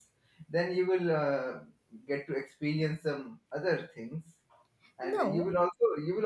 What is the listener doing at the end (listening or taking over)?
listening